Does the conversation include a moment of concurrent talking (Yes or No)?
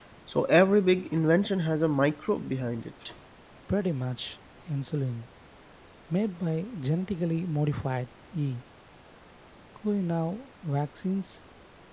No